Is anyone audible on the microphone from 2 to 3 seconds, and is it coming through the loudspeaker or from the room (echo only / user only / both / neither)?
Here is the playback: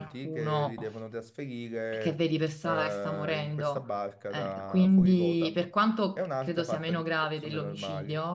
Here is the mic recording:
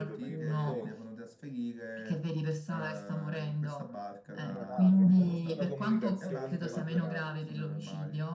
echo only